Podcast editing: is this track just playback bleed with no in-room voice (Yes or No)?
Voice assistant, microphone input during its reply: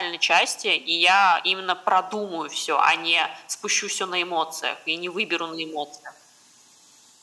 Yes